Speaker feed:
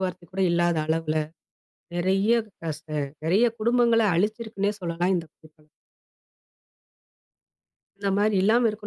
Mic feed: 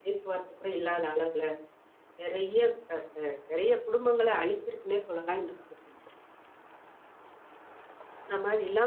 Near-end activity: none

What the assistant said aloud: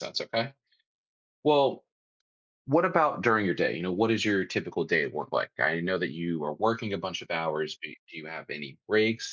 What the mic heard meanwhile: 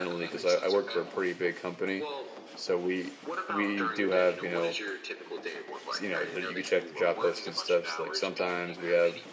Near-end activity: present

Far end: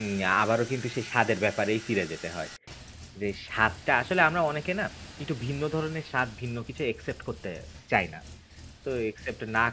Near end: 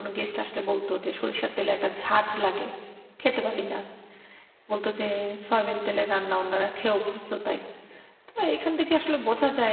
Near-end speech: present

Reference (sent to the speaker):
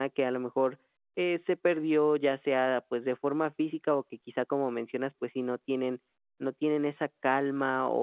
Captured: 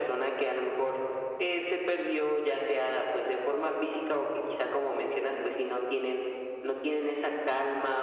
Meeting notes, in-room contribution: none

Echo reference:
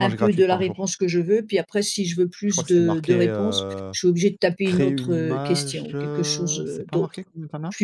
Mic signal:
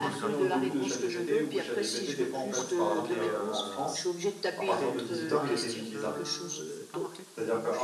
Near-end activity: present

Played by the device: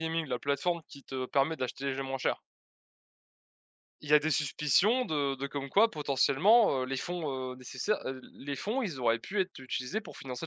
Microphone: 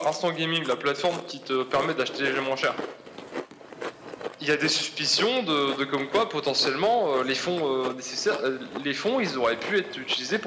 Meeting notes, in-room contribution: none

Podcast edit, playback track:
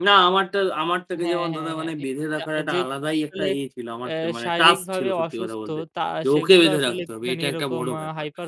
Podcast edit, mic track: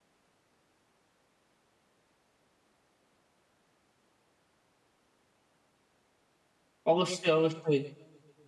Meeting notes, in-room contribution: present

